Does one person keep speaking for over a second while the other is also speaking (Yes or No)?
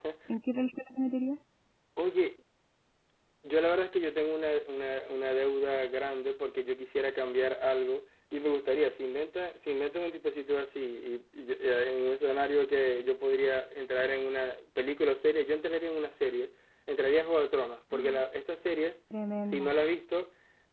No